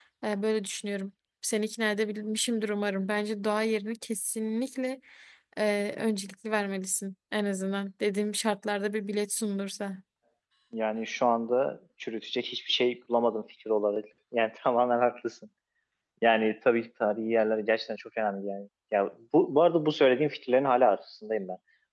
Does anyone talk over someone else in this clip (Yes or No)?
No